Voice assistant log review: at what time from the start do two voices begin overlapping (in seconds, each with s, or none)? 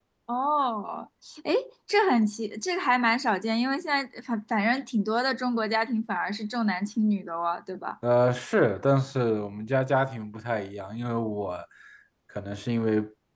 none